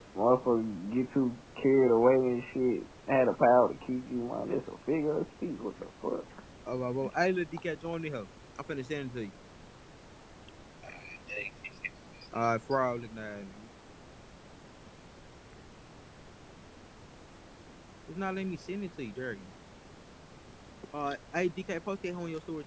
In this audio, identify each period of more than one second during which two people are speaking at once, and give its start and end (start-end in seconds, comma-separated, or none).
none